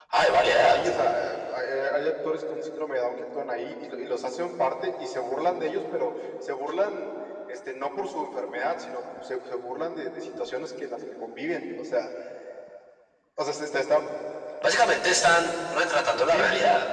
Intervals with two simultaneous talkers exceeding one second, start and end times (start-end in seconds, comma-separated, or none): none